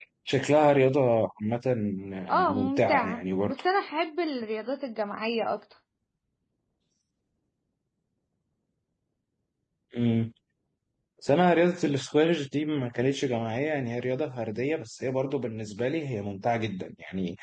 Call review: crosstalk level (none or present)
present